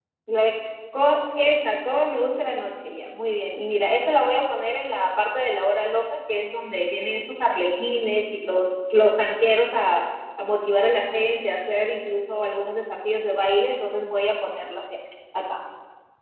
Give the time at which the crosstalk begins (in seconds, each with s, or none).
none